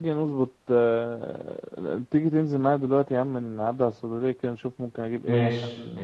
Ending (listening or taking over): taking over